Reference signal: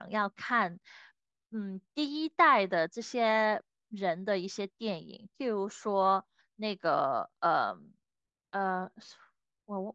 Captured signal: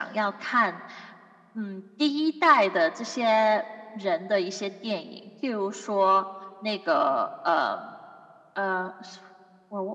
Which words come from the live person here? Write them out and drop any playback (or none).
none